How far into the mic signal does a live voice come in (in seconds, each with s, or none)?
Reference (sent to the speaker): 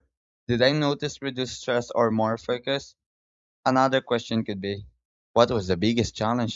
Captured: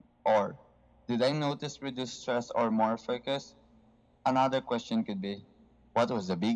none